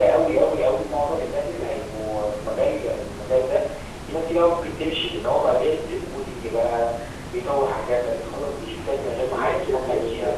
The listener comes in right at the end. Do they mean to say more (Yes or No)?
Yes